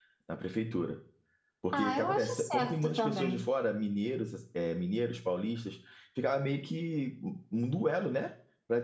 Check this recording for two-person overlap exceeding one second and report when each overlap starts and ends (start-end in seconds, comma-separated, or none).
1.7-3.5